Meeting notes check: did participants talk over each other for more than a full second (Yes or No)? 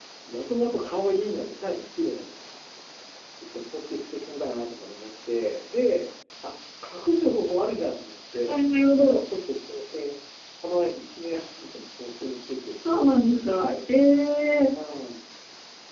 No